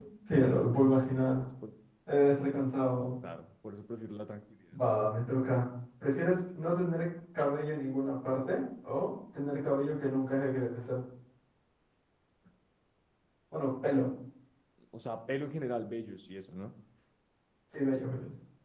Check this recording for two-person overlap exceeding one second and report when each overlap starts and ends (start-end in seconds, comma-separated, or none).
none